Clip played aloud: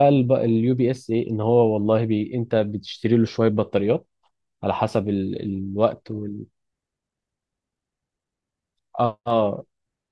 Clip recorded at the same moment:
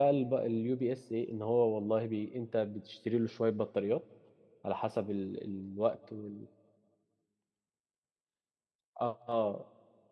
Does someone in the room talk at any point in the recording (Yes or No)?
No